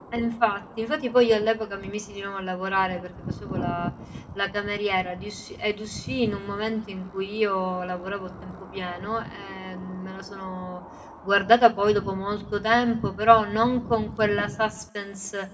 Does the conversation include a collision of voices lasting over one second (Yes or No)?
No